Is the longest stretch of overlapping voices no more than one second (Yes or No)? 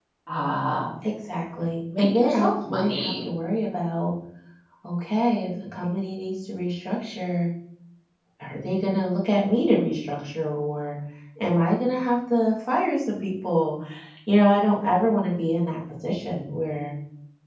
No